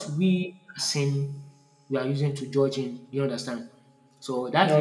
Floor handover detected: No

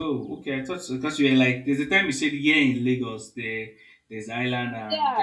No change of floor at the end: No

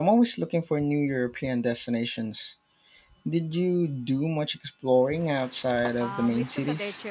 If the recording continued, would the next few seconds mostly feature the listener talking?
Yes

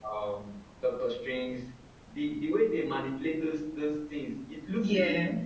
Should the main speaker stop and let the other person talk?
No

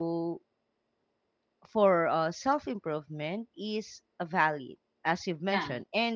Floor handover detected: No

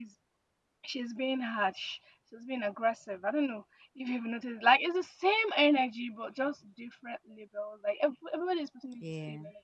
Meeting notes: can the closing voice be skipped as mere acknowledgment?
Yes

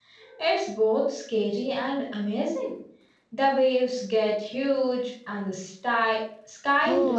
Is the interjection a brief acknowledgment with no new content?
No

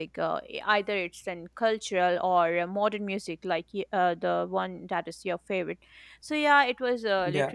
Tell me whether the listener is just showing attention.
Yes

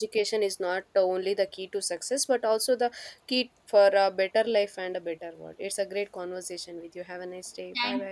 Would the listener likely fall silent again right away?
No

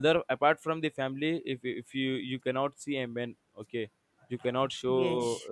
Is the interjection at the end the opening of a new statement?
Yes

